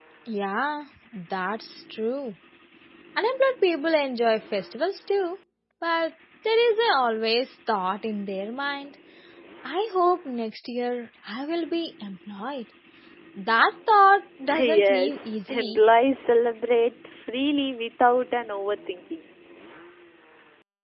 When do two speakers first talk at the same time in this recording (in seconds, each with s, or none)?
14.5 s